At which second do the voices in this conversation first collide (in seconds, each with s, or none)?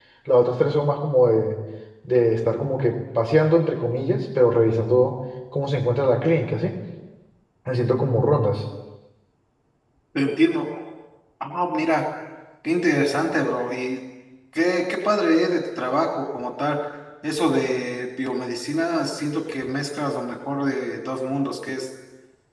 none